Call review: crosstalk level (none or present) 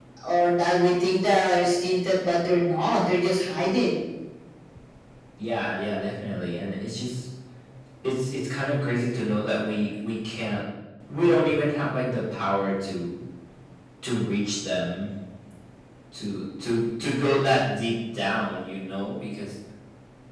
none